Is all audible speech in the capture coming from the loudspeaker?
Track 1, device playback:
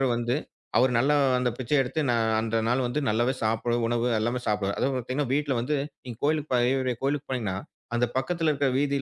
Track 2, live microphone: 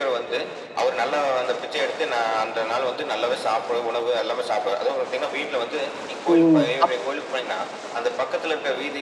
No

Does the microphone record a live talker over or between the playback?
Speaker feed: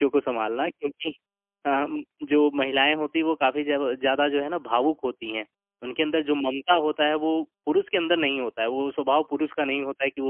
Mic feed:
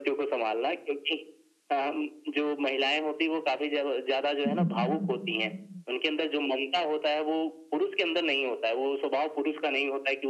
Yes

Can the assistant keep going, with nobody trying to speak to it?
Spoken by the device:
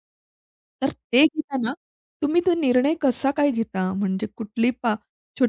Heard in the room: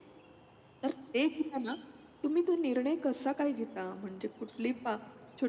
Yes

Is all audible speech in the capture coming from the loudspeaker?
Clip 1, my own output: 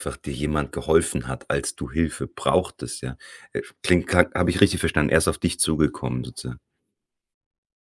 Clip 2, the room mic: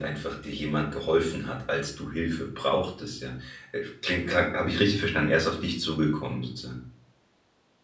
Yes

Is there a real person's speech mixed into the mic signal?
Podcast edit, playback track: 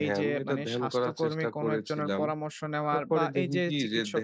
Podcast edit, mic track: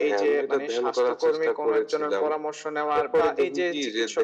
No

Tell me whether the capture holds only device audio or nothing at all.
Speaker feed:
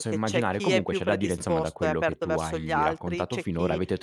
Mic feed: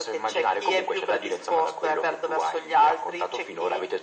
Yes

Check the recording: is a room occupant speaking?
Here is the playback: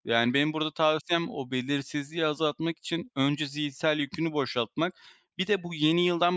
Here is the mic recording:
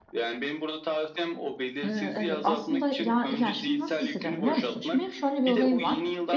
Yes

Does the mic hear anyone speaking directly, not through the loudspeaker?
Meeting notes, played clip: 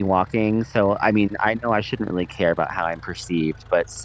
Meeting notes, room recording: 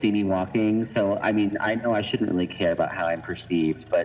No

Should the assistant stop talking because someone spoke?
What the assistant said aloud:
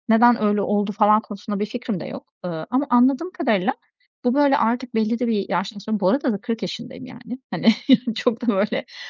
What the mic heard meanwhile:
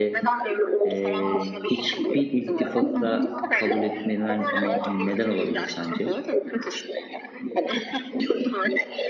Yes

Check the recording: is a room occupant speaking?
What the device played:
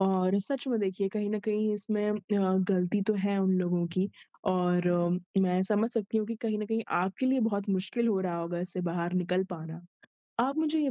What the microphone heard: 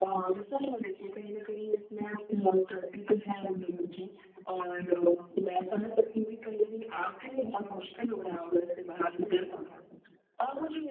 Yes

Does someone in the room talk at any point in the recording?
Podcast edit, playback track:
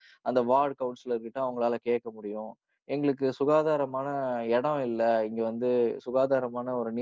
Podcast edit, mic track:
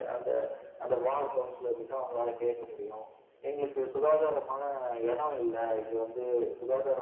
No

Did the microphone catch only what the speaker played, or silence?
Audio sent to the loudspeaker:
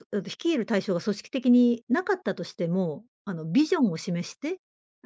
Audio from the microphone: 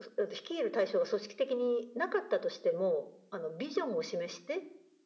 Yes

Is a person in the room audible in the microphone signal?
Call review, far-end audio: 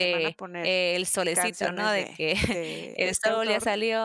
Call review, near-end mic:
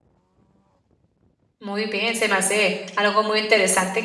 Yes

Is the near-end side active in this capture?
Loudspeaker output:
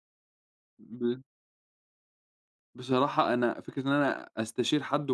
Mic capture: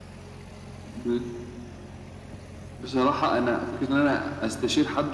No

